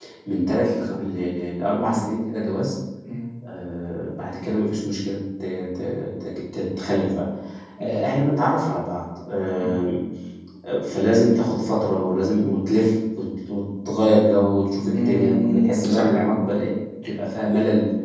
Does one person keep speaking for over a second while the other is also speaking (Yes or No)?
Yes